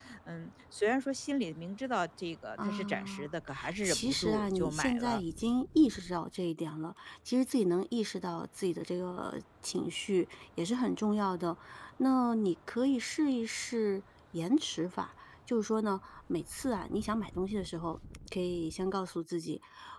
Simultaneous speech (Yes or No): Yes